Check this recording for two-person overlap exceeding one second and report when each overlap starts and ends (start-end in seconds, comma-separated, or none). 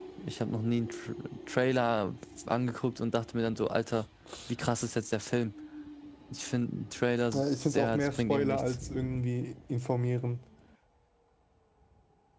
7.3-8.8